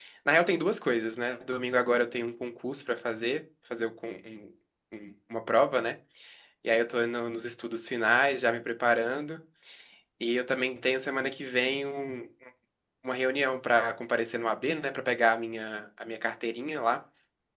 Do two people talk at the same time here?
No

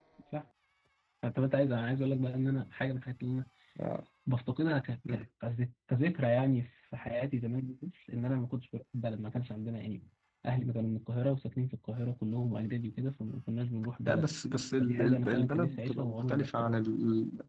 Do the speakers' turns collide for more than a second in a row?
Yes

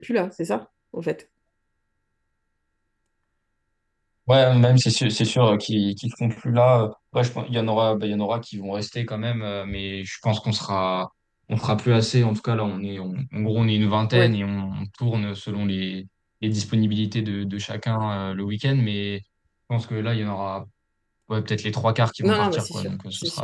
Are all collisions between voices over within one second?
No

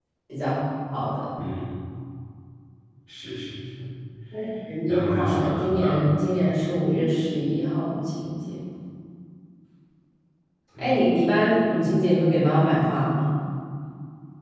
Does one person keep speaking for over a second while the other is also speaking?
Yes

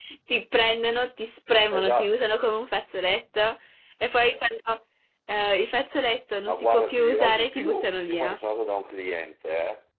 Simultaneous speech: Yes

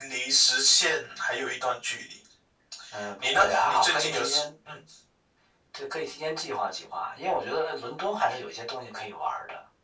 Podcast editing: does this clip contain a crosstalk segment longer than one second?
Yes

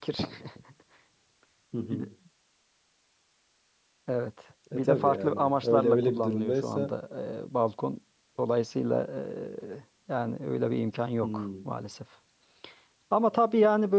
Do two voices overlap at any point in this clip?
Yes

